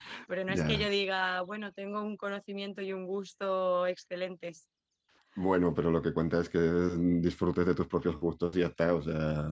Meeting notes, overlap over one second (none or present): none